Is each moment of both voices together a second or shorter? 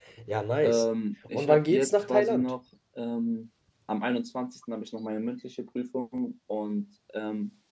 No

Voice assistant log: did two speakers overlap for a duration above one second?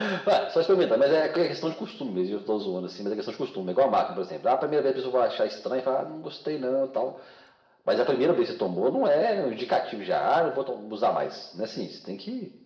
No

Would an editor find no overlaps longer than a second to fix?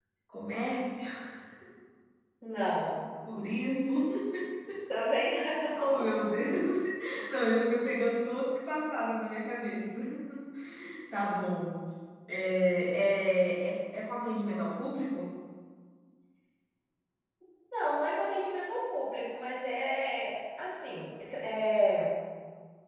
Yes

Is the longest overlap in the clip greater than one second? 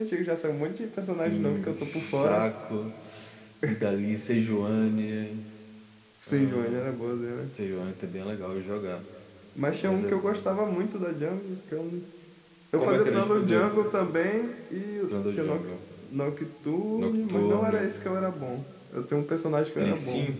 Yes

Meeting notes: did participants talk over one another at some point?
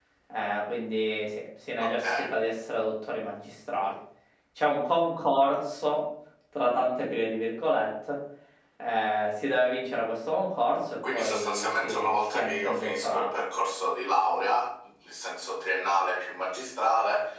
Yes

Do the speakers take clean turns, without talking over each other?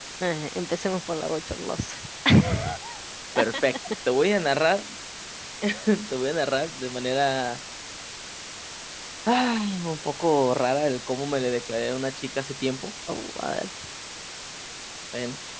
Yes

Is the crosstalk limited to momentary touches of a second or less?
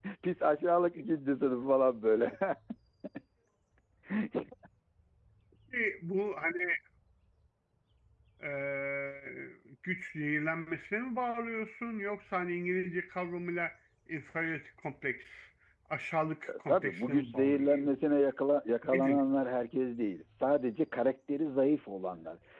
No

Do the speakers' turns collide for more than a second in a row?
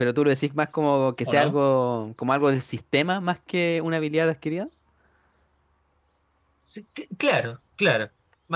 No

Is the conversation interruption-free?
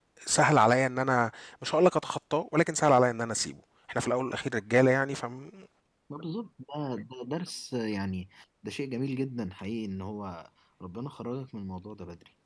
Yes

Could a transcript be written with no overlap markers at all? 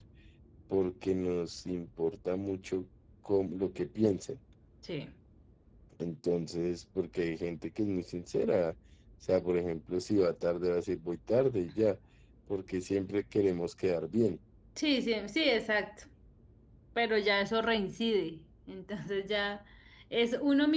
Yes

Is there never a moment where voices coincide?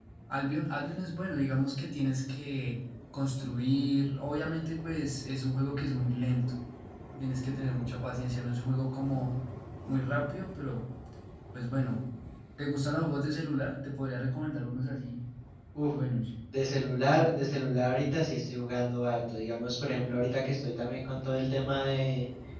Yes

